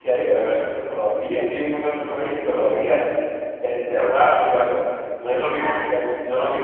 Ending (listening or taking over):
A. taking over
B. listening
B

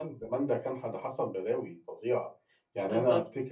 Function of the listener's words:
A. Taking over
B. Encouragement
B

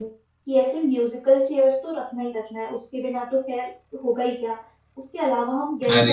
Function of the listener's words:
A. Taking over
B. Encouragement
B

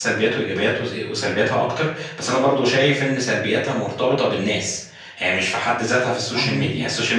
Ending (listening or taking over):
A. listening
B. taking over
A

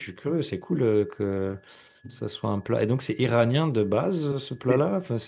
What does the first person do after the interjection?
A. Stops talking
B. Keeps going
A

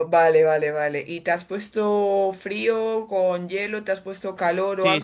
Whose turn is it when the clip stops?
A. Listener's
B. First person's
A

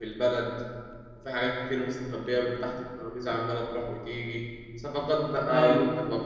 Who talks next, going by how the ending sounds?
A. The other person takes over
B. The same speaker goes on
B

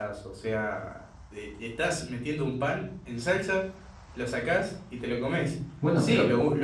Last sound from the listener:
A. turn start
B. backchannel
B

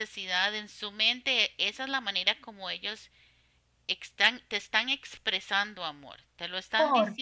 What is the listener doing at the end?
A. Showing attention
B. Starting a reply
A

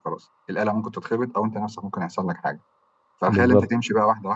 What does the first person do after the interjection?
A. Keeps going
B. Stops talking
A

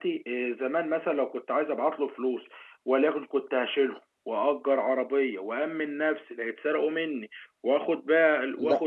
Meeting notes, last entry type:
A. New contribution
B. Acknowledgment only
A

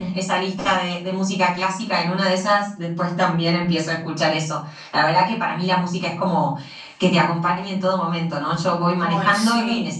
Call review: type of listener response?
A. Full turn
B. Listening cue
B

